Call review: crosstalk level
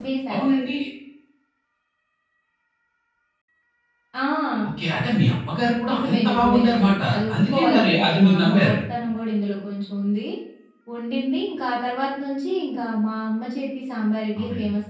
present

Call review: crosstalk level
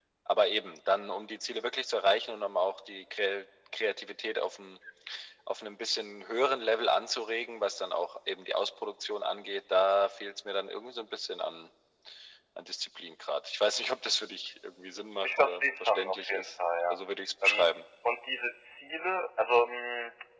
present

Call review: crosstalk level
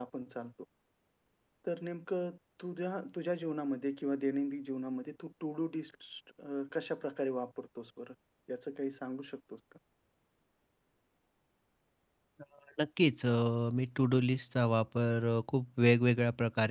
none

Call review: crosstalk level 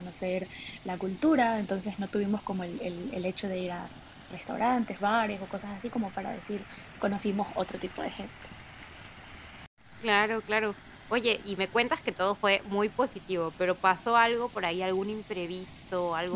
none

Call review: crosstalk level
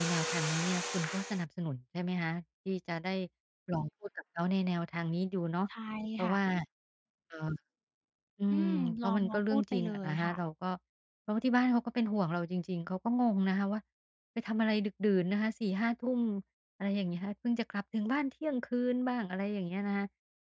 present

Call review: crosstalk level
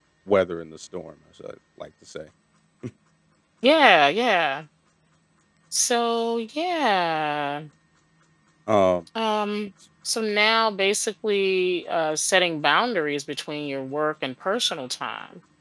none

